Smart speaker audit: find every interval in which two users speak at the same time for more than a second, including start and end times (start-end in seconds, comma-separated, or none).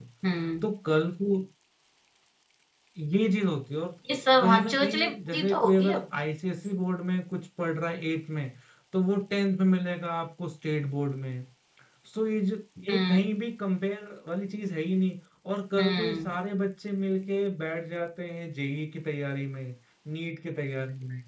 4.4-6.0